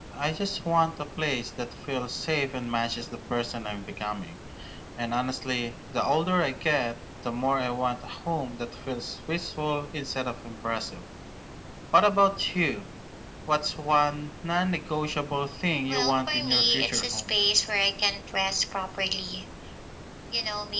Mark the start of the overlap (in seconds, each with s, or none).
15.9 s